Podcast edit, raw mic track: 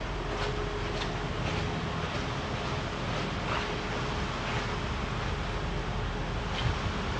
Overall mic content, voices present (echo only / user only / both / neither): neither